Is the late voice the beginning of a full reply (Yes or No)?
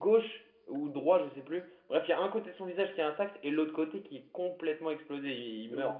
Yes